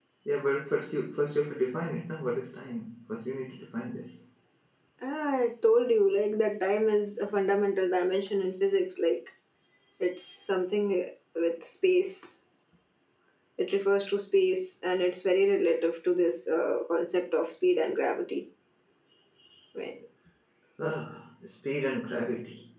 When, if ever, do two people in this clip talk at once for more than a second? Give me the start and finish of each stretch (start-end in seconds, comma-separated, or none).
none